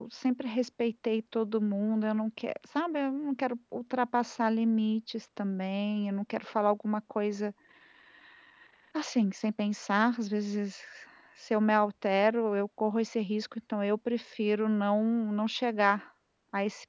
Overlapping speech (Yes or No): No